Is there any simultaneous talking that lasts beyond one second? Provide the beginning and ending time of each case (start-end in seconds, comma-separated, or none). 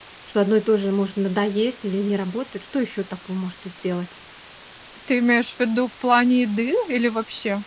none